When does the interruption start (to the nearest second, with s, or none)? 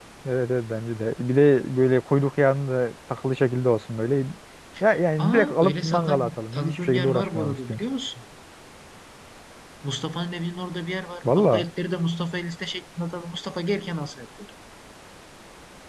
5 s